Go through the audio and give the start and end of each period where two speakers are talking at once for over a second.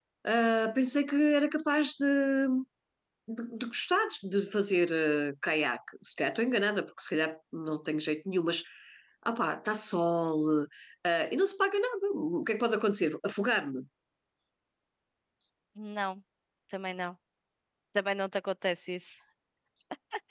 none

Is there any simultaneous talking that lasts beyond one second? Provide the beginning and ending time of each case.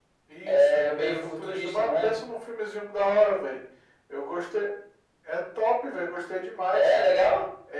0.5-2.2

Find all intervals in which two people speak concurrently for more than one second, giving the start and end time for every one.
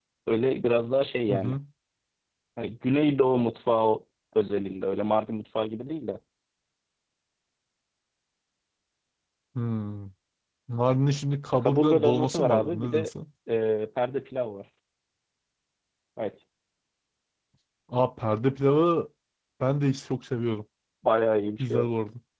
11.7-13.1

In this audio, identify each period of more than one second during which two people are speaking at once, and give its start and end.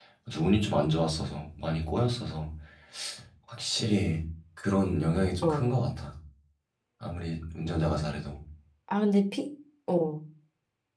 none

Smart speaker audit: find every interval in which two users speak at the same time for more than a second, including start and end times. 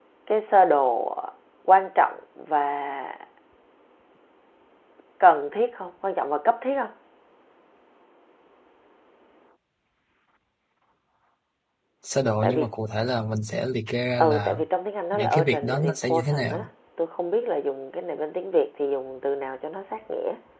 15.1-16.7

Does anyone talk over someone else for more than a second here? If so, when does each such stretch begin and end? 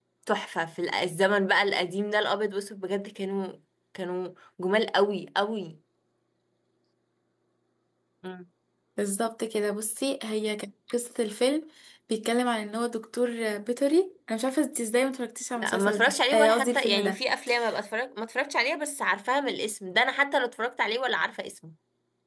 15.6-17.2

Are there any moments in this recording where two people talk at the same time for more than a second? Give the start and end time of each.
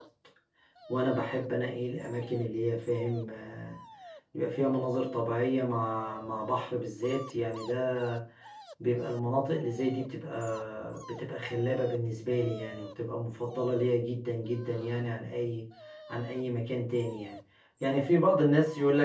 none

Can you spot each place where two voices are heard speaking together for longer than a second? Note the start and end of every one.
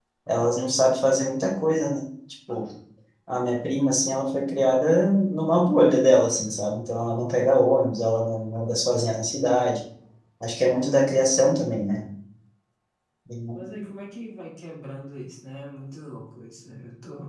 none

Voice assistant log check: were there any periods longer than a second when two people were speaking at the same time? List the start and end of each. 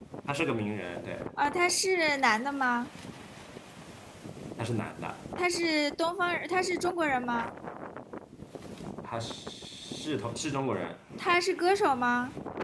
none

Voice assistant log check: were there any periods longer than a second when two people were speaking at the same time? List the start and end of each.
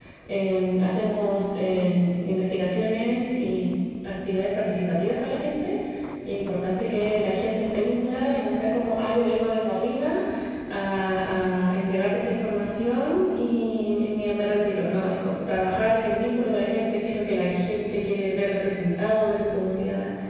none

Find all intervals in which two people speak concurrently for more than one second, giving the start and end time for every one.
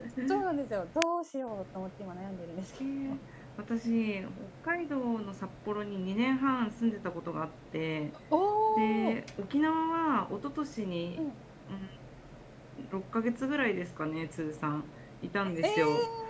none

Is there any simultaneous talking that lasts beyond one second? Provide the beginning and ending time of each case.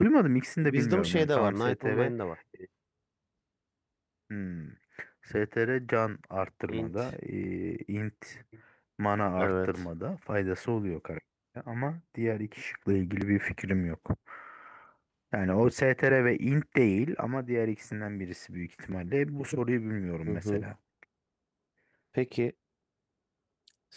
0.7-2.1

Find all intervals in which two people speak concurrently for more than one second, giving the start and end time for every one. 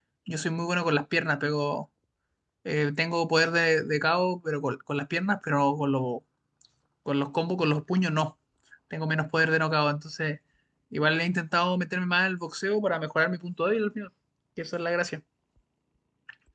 none

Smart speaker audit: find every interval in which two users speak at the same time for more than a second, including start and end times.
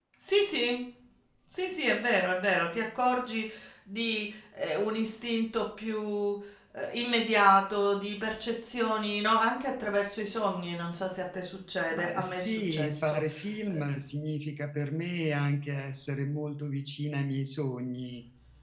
11.9-13.2

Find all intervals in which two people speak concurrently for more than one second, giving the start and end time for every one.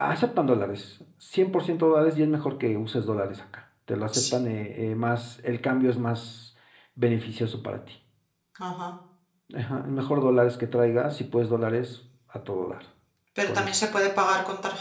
none

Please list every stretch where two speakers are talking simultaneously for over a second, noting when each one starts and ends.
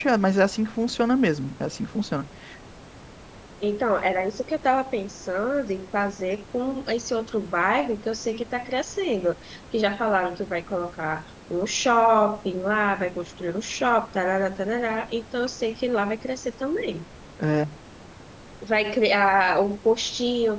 none

